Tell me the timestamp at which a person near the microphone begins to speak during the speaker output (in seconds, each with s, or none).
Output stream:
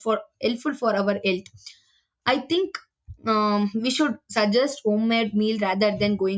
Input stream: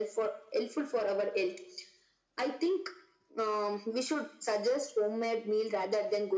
none